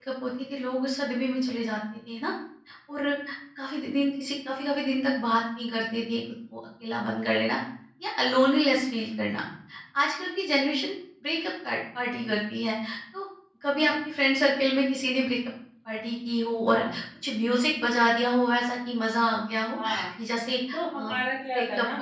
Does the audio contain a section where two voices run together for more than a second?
No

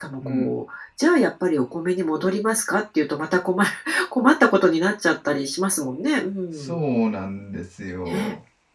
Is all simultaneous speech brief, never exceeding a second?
Yes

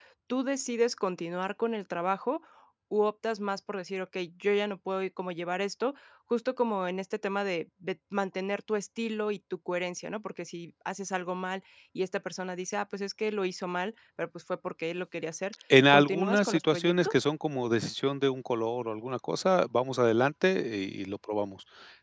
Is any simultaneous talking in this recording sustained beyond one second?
Yes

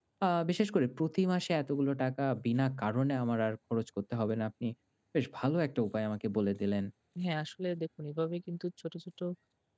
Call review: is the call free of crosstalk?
Yes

